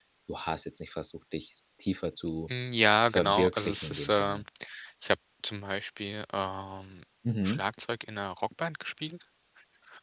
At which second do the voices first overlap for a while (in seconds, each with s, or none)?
3.1 s